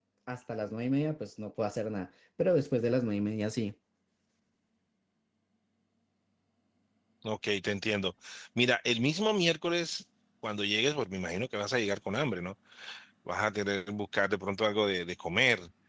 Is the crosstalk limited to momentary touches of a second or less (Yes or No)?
Yes